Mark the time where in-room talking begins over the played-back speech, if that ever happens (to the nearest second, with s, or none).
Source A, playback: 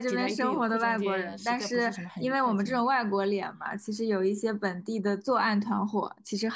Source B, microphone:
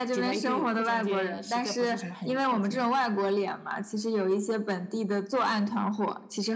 none